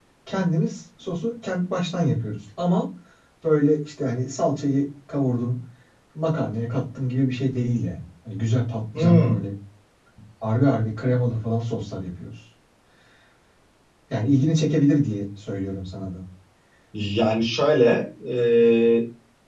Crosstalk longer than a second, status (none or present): none